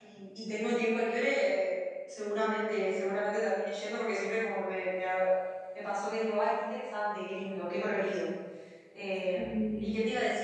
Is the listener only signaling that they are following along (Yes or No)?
Yes